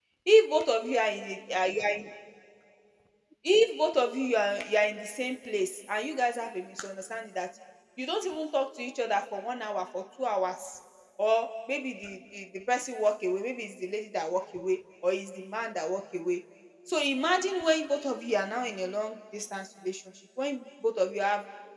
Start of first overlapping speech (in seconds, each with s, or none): none